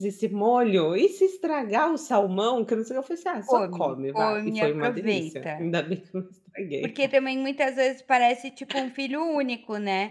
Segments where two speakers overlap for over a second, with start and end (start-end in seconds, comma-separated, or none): 3.5-5.7